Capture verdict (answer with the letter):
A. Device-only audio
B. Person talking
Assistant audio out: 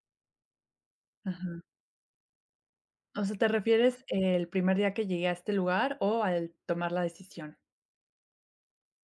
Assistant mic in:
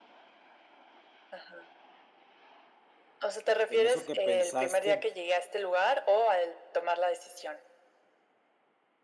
B